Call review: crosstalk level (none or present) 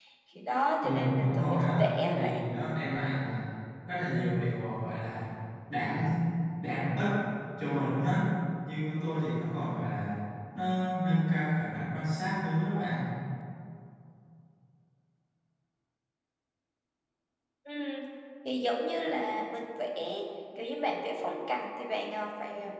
present